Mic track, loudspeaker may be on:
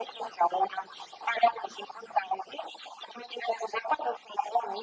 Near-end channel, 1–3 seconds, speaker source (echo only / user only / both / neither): echo only